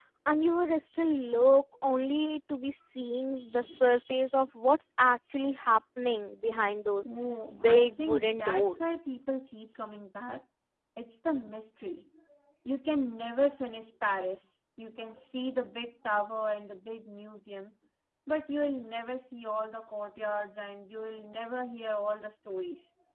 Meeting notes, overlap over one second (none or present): present